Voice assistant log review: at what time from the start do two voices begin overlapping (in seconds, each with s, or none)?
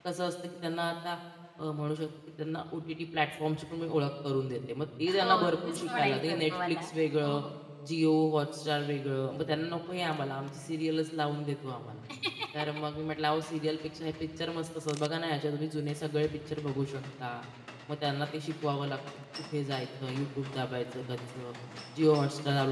5.2 s